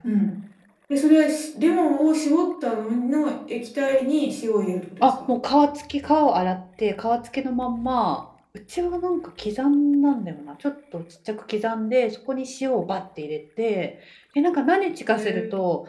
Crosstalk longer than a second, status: none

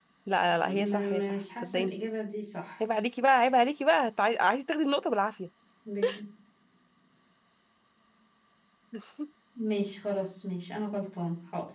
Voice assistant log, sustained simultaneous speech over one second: present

